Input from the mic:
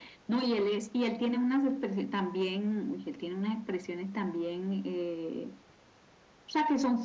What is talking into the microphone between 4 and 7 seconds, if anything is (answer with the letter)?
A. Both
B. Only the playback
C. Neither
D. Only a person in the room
B